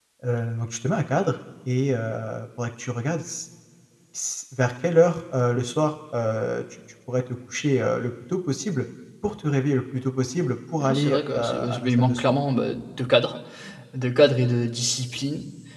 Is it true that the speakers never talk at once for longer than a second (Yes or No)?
No